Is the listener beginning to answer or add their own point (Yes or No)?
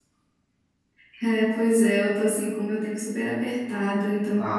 No